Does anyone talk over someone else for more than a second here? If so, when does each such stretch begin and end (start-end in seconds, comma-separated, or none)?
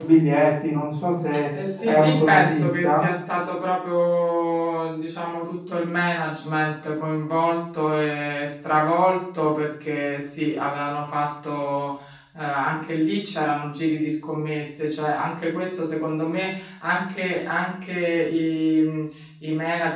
1.8-3.0